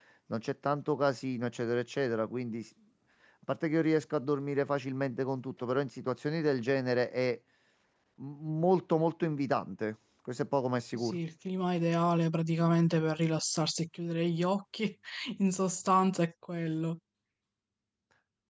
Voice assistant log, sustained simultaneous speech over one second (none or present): none